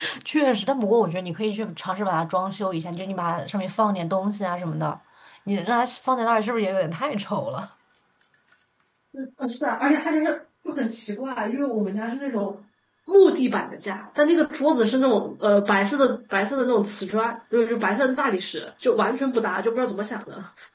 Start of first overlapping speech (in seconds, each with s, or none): none